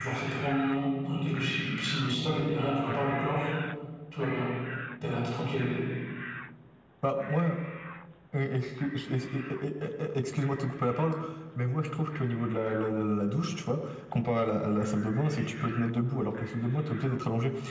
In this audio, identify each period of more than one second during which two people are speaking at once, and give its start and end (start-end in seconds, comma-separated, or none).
none